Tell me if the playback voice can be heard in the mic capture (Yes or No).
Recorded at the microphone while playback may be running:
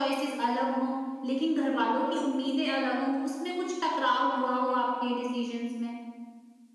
Yes